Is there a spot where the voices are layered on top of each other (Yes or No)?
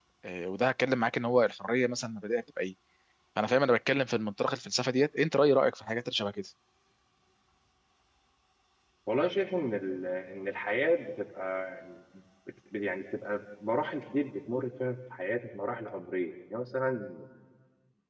No